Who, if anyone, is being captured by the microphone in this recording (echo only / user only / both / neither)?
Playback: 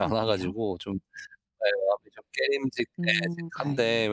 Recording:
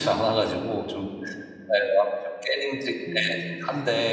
echo only